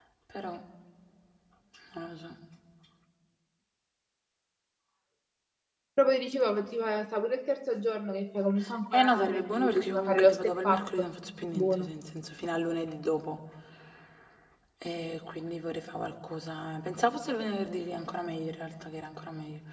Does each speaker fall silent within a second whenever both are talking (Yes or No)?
No